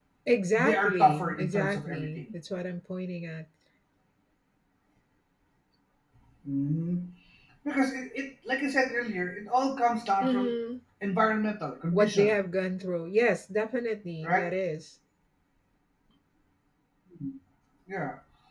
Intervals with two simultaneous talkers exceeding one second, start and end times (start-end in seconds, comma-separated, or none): 0.6-2.3